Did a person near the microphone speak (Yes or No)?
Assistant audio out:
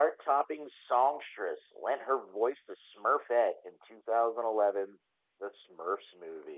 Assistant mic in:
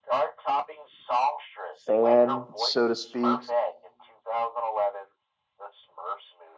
Yes